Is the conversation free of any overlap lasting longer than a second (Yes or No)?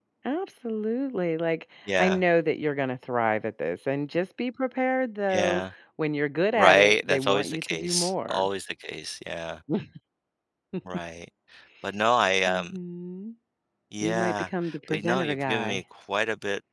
No